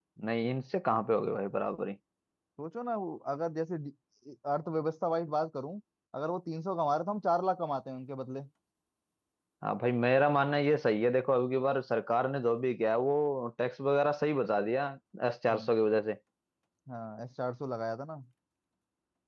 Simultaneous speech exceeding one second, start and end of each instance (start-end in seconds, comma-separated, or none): none